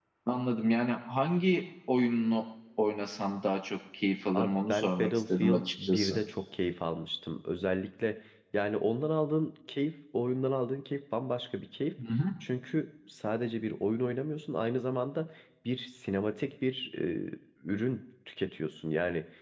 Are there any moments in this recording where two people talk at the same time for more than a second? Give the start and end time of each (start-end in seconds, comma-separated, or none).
4.3-6.2